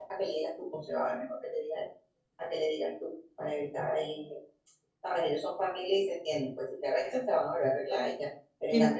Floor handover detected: No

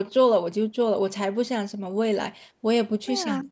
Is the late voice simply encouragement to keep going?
Yes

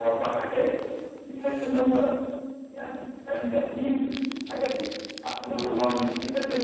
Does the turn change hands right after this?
No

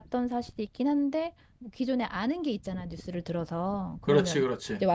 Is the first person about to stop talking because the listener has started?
No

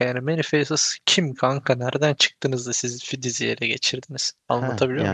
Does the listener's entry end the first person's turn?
Yes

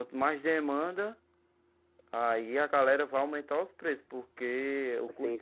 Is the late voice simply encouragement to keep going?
No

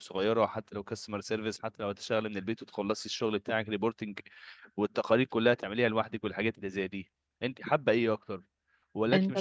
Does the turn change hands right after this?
No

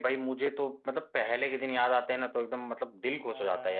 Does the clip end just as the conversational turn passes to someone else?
Yes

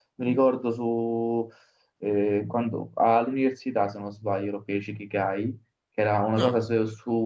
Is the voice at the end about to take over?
No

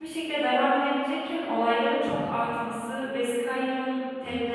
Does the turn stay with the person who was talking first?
Yes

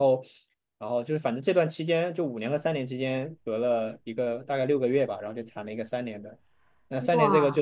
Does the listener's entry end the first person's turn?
No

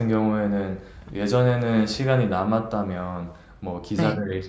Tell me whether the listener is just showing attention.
Yes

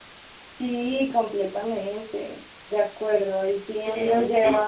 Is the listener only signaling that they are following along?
Yes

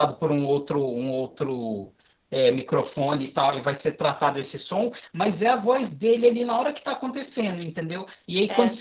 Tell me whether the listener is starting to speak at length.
No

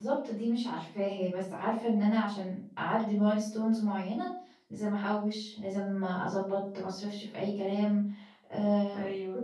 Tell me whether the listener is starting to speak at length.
No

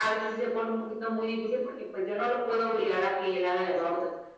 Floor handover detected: No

